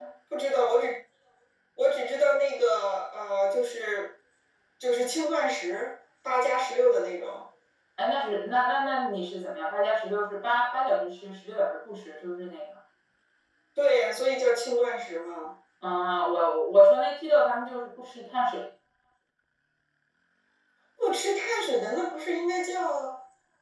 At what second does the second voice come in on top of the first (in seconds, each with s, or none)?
none